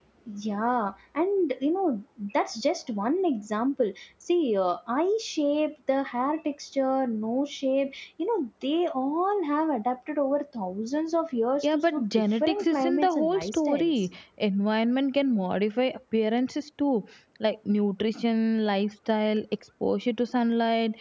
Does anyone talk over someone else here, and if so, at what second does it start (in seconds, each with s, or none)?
11.6 s